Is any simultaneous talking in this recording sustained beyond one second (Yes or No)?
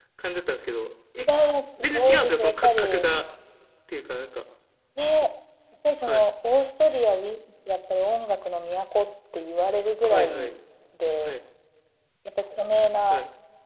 Yes